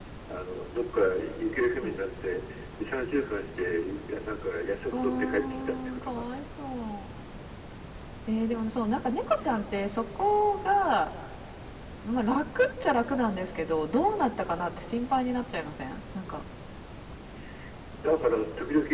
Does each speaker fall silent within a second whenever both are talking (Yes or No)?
No